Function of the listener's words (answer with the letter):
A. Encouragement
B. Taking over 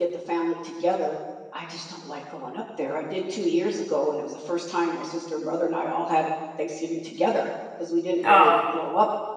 A